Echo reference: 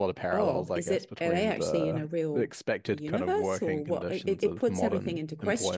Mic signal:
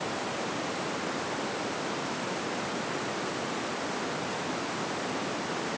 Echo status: none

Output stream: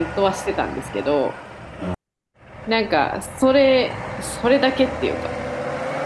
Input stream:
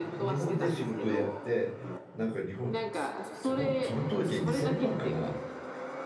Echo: present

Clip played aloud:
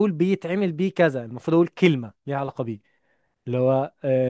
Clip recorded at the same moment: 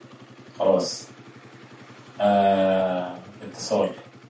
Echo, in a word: none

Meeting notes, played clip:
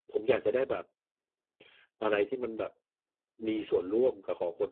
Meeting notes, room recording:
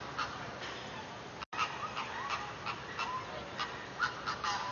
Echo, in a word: none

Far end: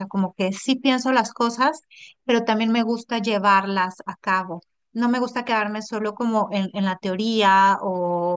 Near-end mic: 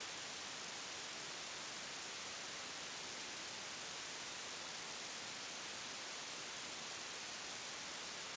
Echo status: none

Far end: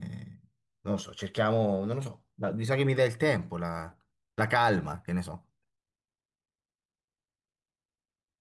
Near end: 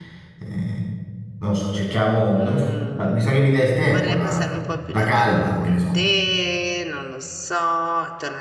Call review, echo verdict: present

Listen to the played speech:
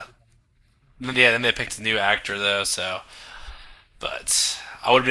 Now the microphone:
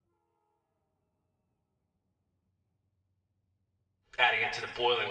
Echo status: none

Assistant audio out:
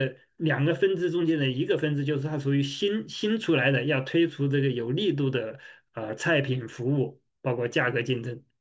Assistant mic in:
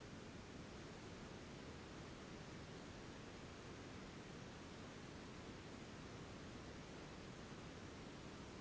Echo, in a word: none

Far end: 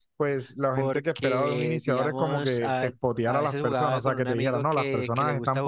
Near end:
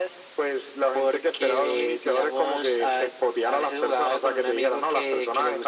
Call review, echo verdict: present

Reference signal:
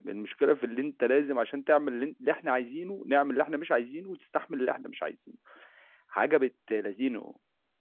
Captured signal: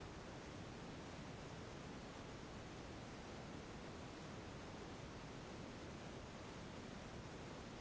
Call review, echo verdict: none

